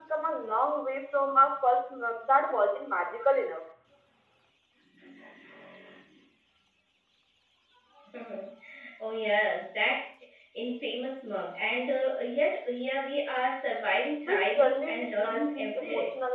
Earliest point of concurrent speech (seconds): 14.3 s

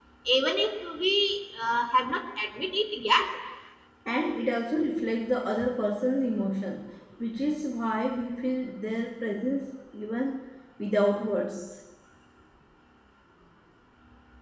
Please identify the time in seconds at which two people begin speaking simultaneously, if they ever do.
none

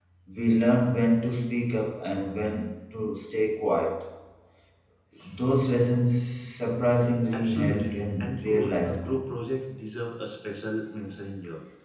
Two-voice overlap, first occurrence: 7.3 s

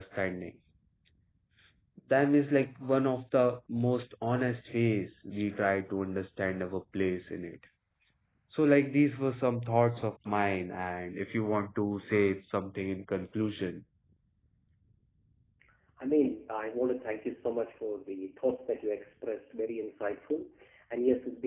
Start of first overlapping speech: none

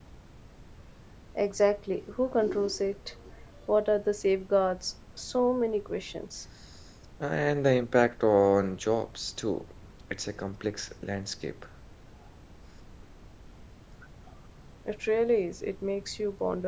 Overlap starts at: none

